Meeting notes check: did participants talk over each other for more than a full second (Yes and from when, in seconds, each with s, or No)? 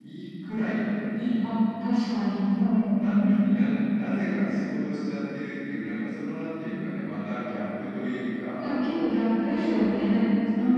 No